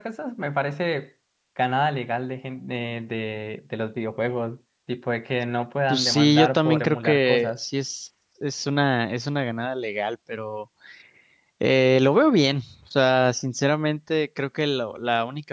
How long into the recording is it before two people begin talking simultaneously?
5.9 s

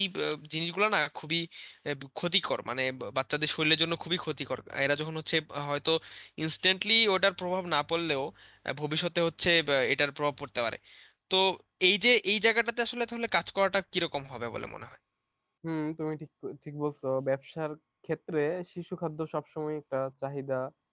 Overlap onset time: none

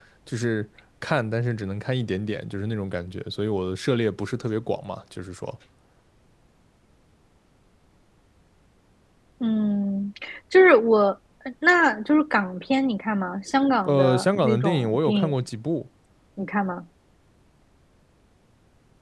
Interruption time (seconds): 13.9 s

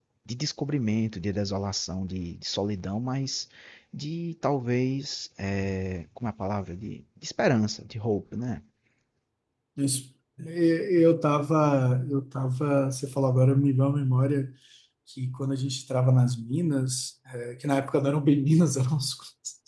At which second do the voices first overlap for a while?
none

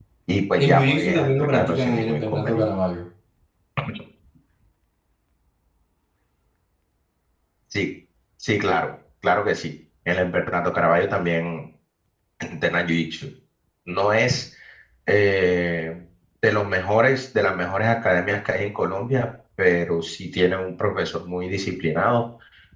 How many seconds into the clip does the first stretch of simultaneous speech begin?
0.6 s

